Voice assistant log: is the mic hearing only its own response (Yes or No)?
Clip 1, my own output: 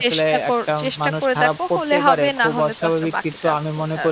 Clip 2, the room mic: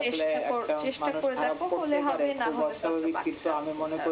Yes